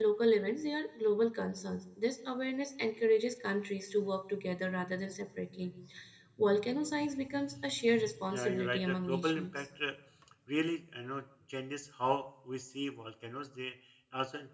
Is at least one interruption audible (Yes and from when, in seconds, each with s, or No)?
Yes, from 8.3 s